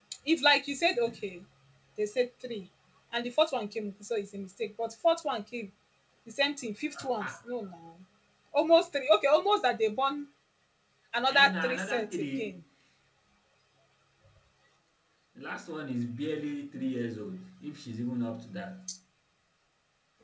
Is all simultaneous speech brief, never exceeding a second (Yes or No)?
No